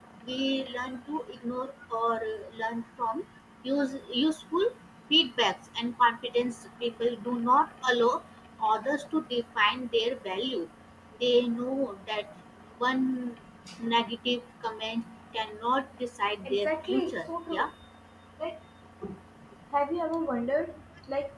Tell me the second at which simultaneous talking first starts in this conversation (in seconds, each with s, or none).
16.4 s